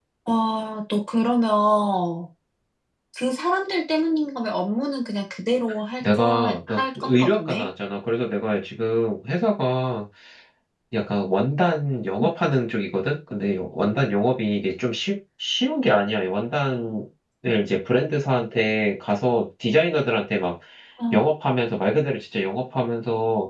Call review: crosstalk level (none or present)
present